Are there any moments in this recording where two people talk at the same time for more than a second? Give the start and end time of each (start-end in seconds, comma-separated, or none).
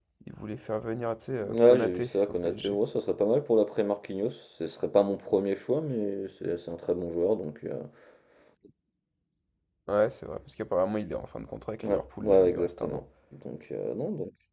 1.4-2.8, 11.8-13.0